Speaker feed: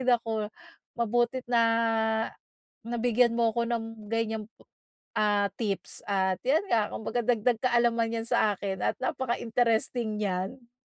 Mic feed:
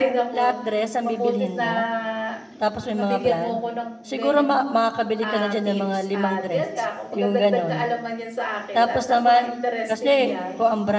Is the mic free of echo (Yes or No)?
No